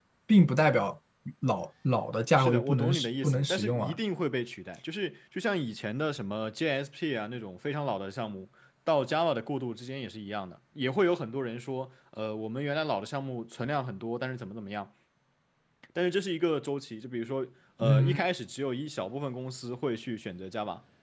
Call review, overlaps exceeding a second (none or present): present